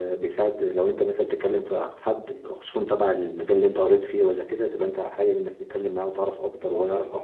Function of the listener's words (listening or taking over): taking over